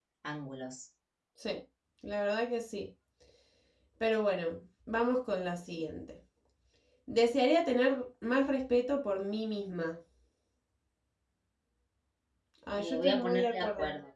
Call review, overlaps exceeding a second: present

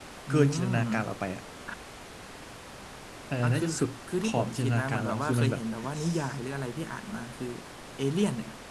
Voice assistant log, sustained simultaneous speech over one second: present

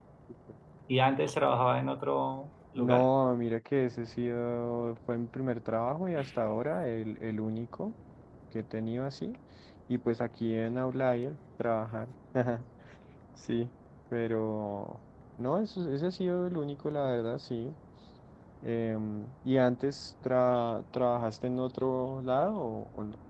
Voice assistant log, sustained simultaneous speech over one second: none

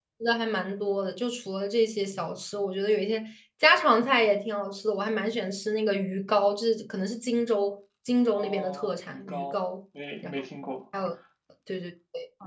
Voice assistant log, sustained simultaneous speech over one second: present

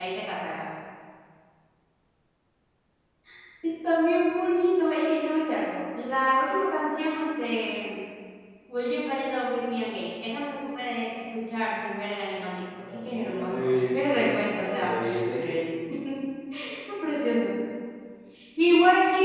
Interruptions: present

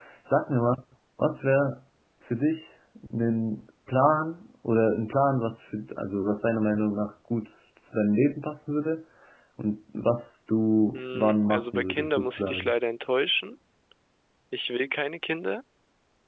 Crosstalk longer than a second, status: present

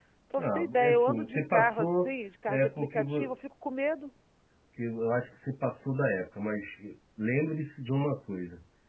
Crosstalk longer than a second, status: present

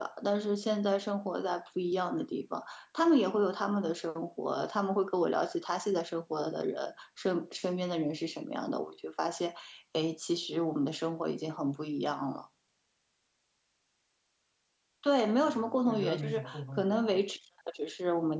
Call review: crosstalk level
present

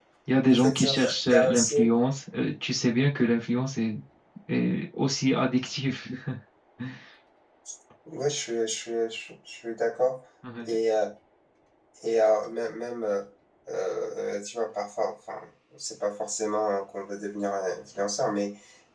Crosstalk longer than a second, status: present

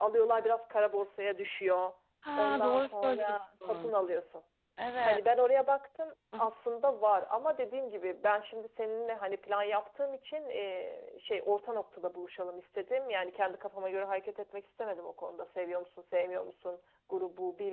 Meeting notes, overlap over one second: present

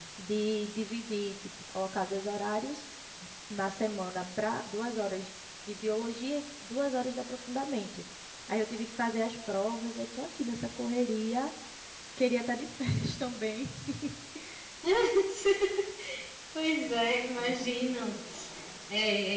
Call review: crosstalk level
none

